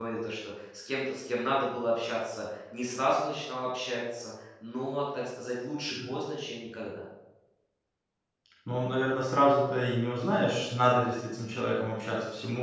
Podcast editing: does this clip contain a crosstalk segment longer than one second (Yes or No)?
No